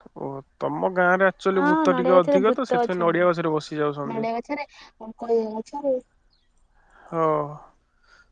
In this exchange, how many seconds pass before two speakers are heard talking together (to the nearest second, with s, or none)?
2 s